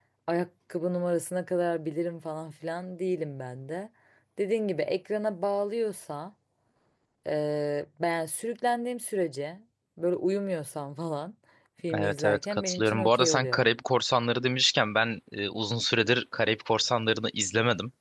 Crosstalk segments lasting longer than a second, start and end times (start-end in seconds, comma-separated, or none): 11.9-13.6